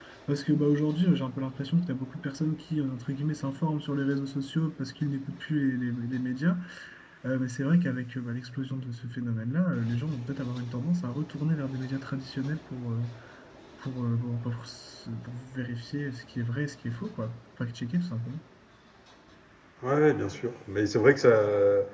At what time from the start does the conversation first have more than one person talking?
none

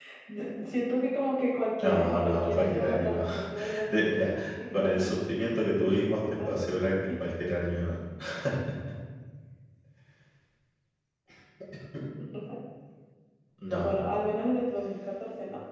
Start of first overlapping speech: 2 s

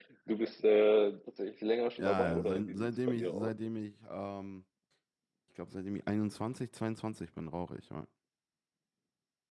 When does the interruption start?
2 s

